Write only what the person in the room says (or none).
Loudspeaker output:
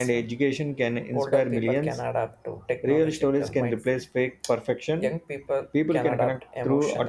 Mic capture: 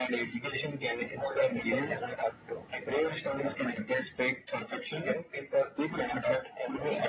none